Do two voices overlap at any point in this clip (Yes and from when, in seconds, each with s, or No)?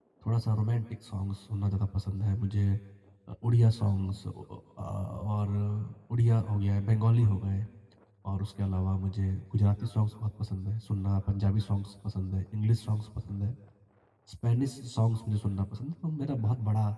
No